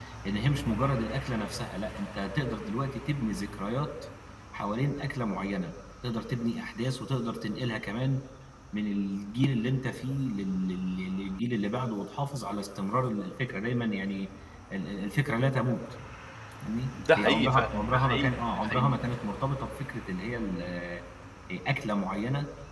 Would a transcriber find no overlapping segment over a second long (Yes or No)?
No